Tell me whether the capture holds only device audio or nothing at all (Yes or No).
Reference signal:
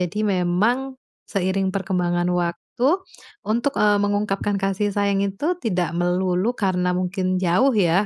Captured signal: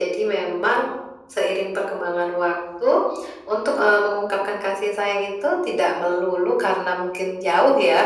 Yes